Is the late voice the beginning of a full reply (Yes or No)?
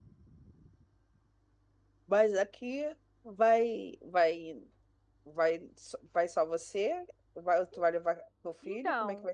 Yes